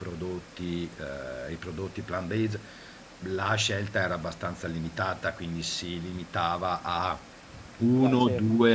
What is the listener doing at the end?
listening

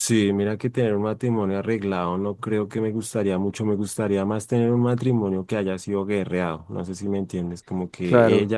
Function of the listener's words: listening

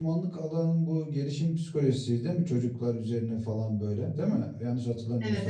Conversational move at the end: taking over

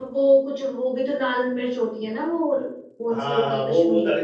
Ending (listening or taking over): taking over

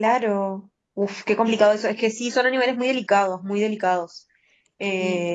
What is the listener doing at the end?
taking over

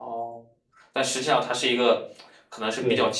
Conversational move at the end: listening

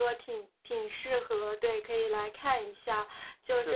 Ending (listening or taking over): listening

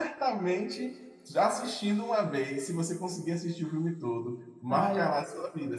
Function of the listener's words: listening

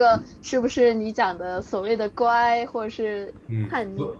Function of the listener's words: taking over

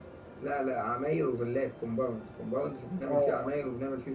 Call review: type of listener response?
listening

